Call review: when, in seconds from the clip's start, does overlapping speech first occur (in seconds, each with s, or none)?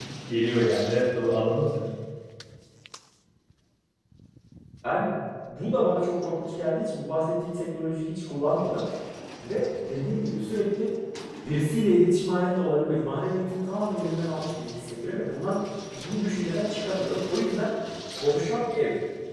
none